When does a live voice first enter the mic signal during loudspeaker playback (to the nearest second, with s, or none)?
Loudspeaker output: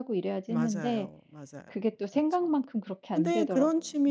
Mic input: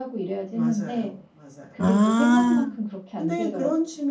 2 s